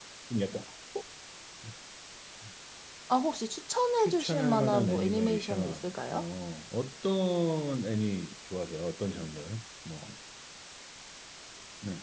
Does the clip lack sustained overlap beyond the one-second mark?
No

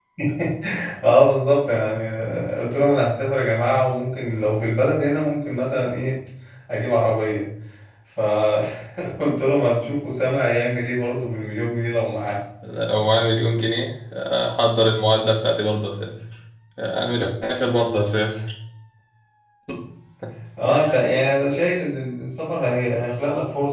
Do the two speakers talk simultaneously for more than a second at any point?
No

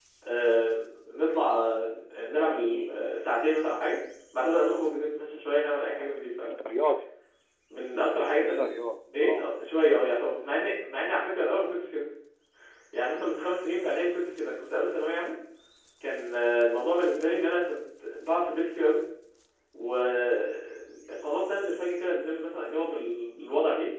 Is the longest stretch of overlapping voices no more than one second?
Yes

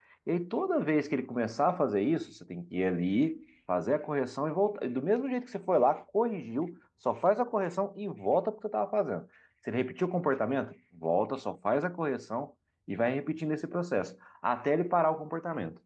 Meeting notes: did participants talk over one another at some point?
No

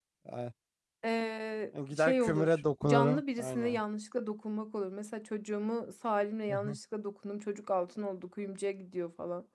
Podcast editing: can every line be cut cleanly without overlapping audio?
No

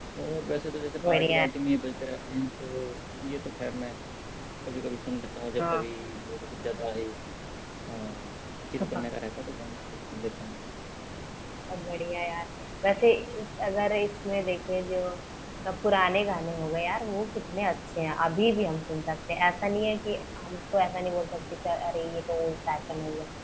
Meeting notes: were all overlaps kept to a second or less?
Yes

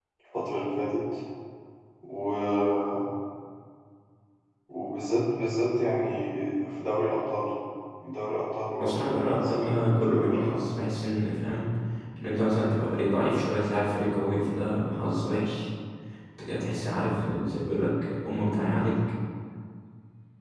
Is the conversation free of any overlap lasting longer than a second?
No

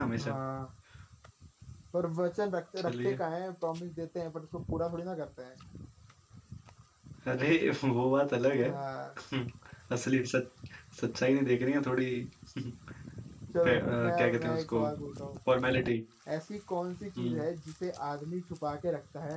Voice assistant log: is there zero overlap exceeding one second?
No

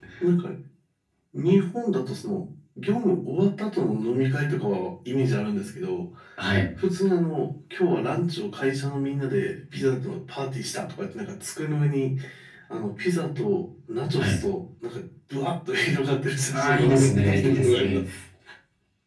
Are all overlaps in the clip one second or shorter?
No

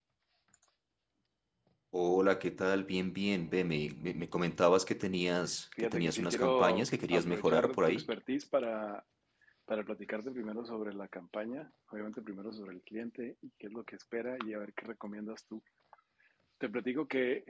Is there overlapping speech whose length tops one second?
Yes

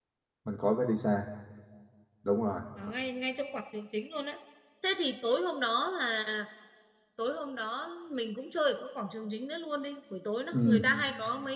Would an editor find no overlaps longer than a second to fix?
Yes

